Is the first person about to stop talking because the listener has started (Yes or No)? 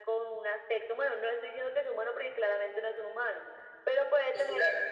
No